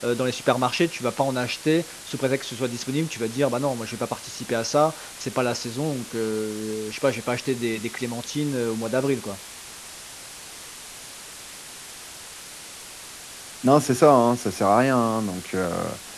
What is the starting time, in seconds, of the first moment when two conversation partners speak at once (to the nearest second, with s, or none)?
none